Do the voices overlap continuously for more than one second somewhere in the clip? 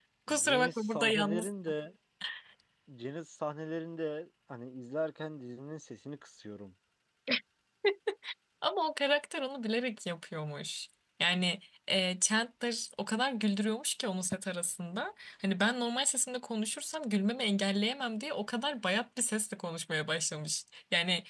Yes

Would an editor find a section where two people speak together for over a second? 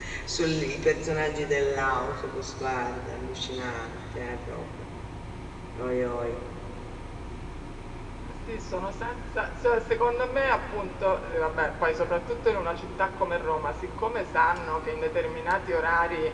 No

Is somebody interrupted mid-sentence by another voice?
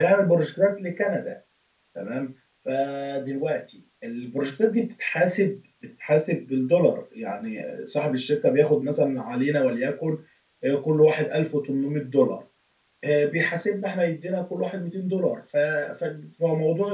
No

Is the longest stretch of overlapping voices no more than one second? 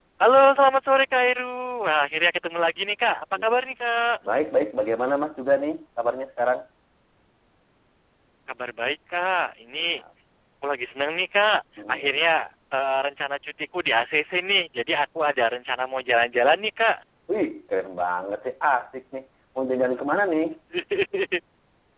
Yes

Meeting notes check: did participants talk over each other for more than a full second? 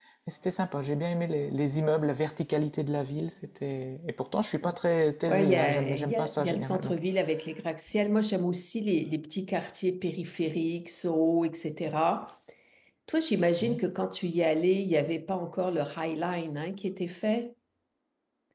Yes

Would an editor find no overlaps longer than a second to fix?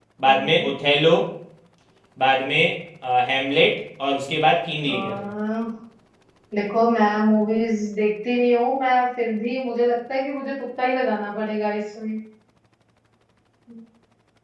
Yes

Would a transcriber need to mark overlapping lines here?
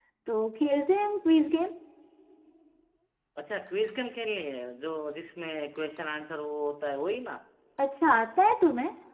No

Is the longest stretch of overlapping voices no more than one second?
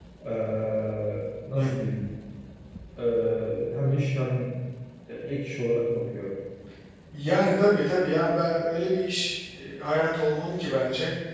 Yes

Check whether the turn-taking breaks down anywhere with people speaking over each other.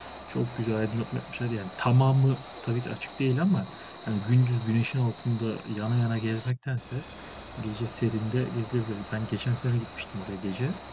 No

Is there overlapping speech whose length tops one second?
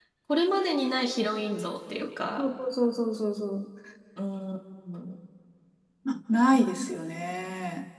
No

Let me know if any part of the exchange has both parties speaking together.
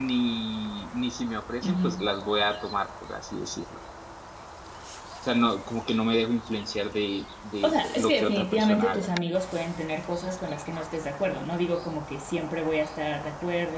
Yes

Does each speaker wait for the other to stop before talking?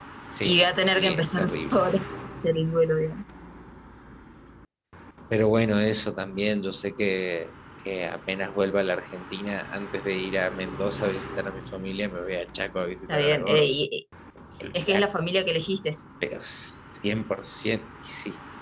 No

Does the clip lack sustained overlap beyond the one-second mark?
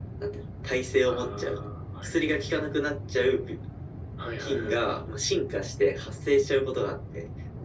Yes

